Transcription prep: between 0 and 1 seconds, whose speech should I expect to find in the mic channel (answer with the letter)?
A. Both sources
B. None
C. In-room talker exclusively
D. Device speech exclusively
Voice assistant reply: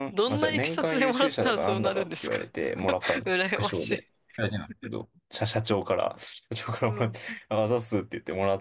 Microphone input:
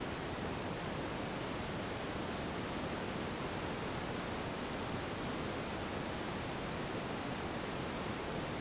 B